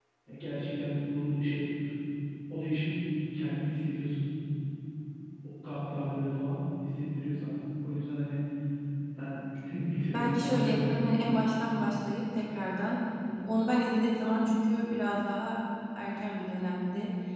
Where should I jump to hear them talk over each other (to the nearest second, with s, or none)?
10 s